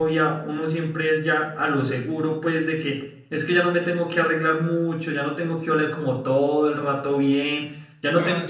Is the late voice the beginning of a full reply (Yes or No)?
No